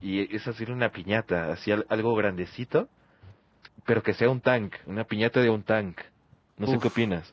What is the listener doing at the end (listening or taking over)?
taking over